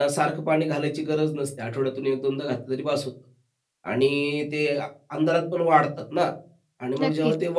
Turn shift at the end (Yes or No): No